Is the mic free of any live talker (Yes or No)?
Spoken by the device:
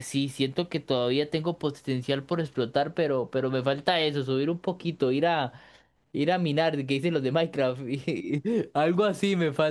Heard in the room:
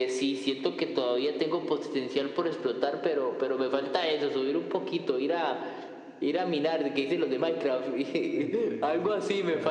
No